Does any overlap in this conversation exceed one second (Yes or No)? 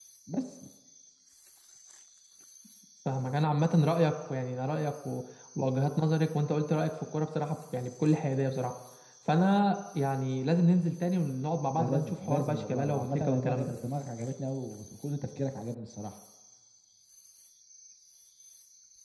Yes